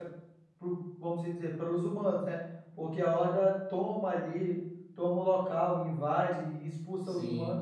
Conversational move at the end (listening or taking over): taking over